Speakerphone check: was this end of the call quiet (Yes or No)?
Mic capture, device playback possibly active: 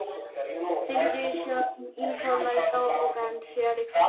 No